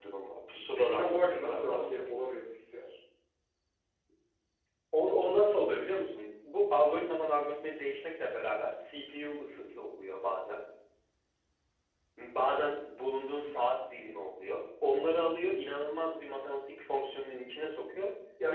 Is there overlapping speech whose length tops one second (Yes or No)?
Yes